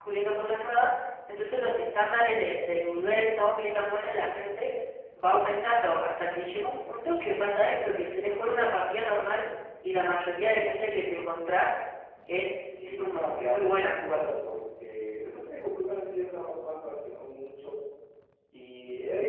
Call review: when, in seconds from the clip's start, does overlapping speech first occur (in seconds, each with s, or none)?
13.0 s